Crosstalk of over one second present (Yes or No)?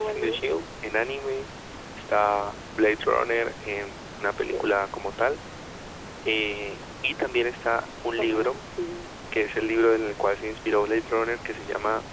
No